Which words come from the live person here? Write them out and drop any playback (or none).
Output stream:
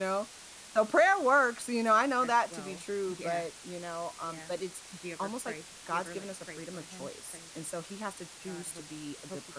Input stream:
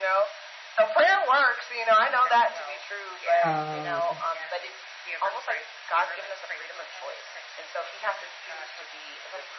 Oh.